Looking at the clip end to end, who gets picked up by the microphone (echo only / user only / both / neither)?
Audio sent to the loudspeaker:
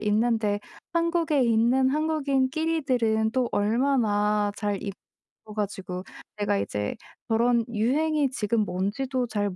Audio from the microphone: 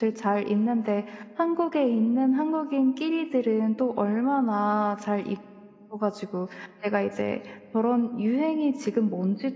echo only